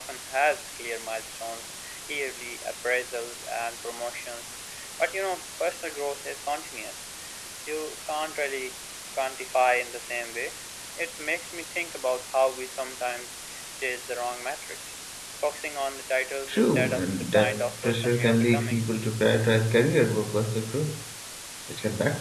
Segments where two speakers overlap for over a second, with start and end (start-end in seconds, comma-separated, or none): 16.5-18.8